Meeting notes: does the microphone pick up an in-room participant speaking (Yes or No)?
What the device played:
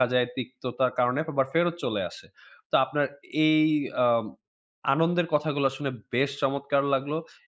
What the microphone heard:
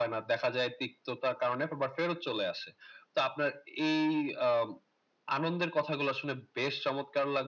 No